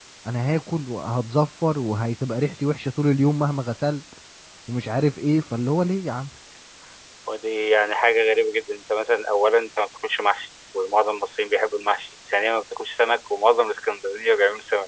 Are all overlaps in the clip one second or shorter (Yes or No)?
Yes